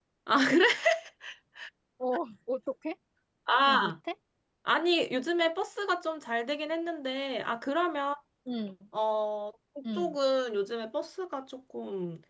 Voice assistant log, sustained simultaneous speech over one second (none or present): none